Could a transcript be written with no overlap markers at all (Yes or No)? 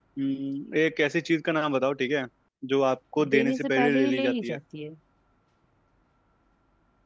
No